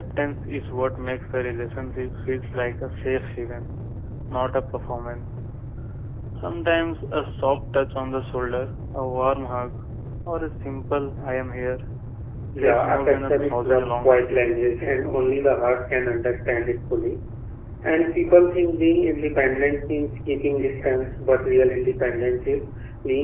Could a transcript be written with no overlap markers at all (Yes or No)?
No